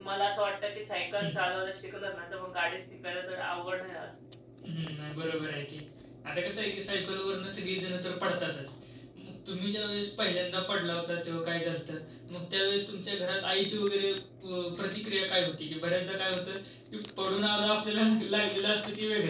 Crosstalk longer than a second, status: none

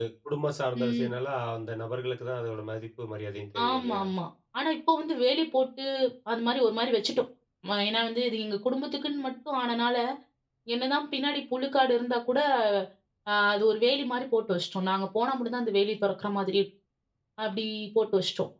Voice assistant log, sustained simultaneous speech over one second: none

